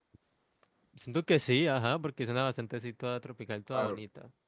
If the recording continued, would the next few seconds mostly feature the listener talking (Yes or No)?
Yes